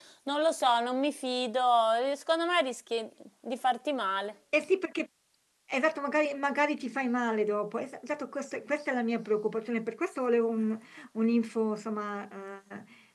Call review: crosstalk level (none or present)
none